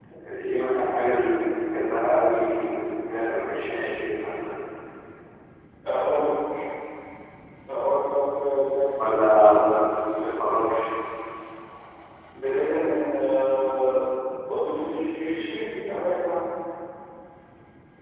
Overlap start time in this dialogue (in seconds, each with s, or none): none